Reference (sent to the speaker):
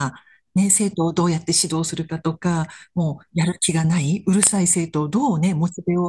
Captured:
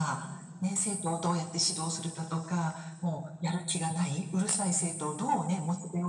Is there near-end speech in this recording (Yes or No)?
No